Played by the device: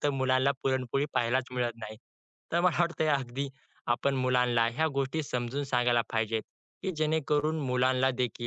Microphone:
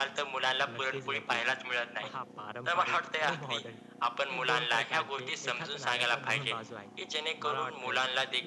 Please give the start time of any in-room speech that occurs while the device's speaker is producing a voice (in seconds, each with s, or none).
0.7 s